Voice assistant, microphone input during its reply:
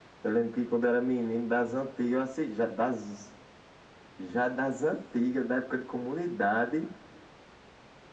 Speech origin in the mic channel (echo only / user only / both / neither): echo only